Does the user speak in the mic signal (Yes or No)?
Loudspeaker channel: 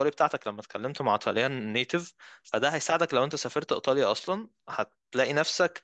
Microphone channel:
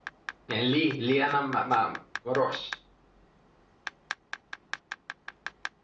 Yes